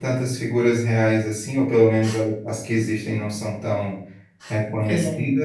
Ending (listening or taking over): listening